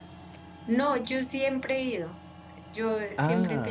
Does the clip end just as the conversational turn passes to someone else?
No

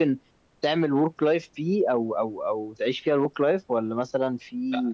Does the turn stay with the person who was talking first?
No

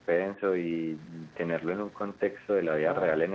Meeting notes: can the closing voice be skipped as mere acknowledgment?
Yes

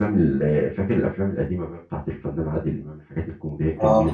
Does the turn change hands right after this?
Yes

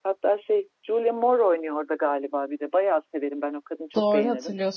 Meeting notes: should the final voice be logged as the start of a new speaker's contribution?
Yes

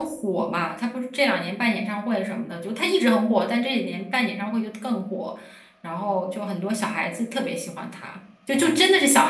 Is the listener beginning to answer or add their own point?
No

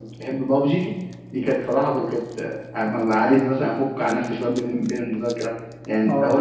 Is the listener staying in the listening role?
Yes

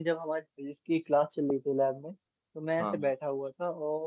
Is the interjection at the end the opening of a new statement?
No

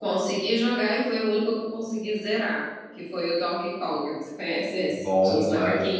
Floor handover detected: Yes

